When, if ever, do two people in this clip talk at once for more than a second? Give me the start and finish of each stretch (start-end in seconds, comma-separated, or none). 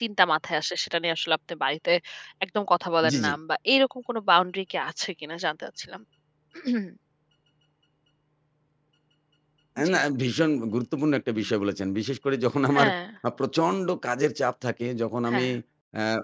none